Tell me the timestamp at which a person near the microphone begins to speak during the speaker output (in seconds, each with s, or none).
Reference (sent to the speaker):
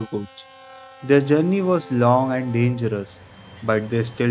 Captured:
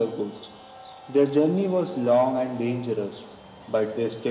none